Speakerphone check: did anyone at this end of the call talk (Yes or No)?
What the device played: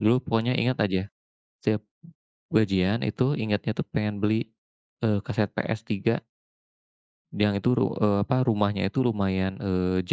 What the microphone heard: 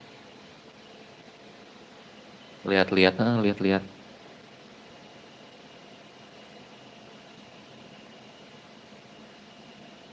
Yes